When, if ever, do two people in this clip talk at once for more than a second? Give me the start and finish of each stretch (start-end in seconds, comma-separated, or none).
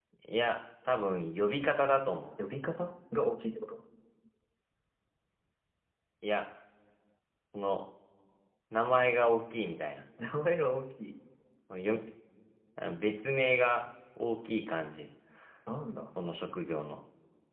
none